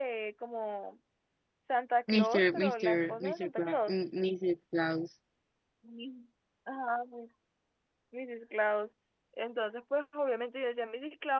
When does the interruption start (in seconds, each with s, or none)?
2.1 s